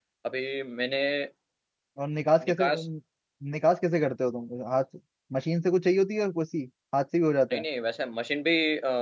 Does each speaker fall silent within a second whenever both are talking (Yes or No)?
Yes